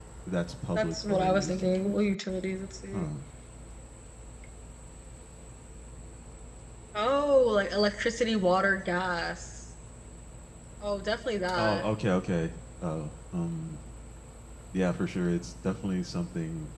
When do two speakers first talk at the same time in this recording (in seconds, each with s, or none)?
0.8 s